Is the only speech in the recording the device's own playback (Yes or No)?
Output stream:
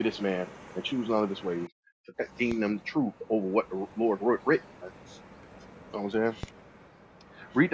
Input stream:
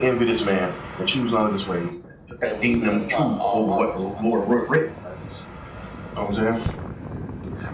No